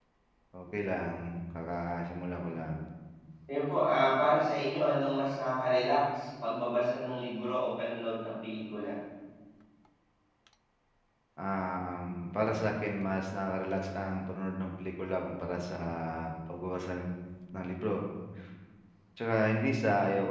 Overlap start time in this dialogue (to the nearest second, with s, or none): none